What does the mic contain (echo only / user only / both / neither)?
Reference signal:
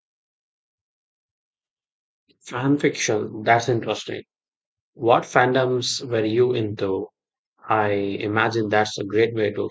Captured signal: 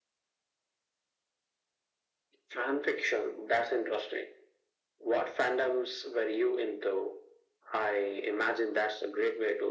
echo only